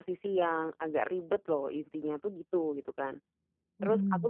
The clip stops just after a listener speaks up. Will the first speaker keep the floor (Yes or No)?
Yes